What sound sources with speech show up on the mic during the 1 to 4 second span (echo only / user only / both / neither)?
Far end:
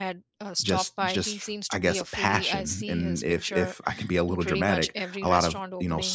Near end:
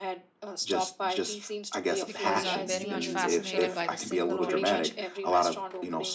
both